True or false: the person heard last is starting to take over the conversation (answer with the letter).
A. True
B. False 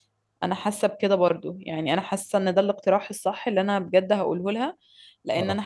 B